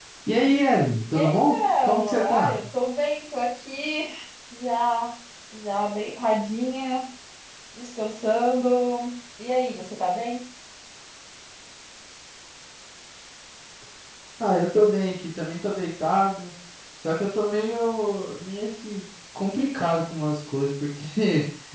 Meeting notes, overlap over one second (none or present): present